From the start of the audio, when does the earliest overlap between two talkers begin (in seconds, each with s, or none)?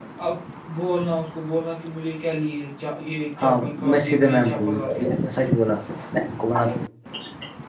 3.4 s